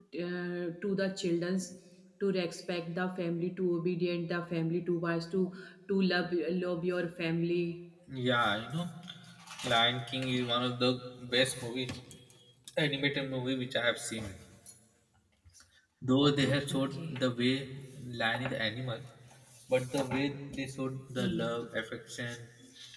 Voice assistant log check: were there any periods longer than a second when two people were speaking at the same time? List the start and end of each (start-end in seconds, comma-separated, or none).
none